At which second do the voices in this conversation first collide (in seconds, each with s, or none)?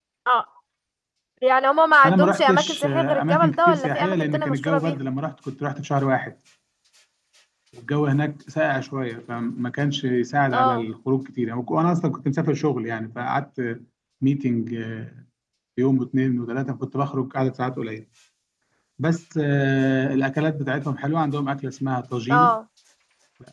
2.0 s